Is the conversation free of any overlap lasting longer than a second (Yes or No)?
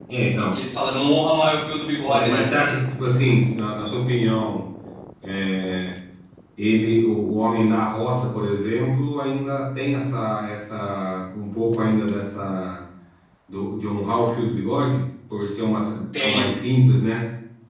Yes